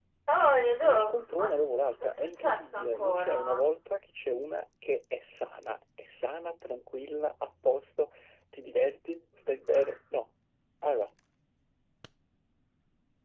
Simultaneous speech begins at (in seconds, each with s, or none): 0.8 s